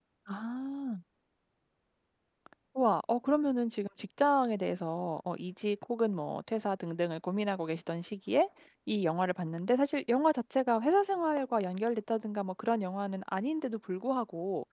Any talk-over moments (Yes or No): No